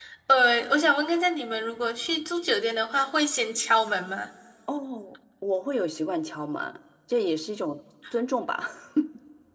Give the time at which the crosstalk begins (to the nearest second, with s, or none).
none